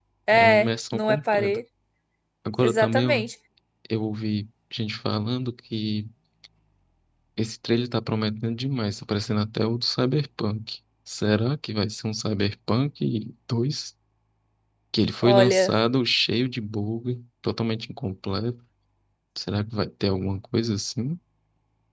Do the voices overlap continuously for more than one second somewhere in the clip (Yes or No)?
Yes